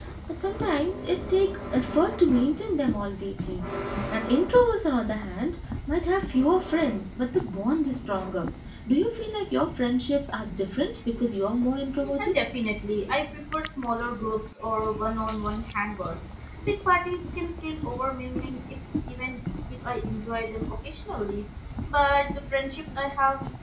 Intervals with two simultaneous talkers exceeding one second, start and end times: none

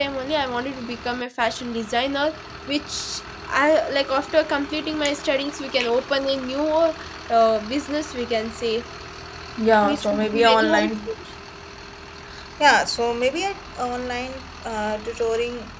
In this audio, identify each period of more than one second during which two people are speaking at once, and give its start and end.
9.8-11.1

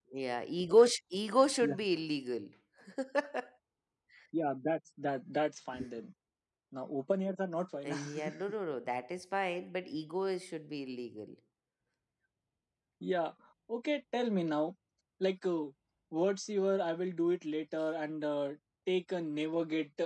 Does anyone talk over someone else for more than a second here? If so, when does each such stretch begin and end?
none

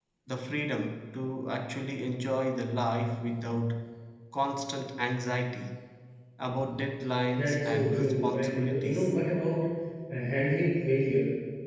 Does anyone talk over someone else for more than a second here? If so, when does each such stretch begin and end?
7.3-9.1

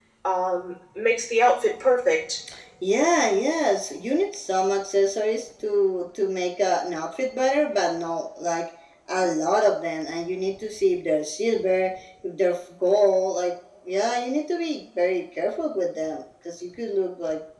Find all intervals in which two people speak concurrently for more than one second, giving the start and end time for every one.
none

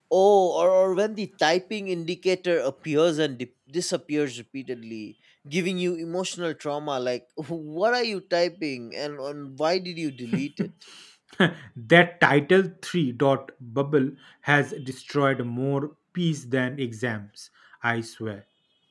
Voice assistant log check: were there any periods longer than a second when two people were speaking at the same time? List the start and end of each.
none

